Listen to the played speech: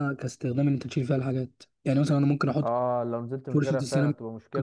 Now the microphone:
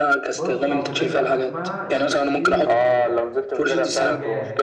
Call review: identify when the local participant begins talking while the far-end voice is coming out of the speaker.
0.3 s

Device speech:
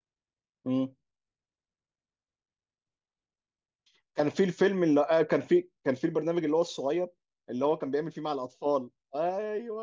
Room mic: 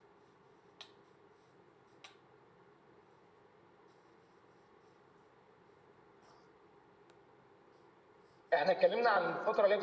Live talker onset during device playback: 8.5 s

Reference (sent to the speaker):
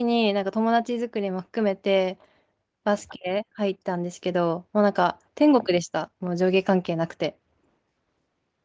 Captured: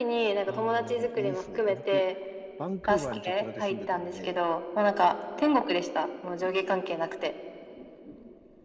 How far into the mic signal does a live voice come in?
0.5 s

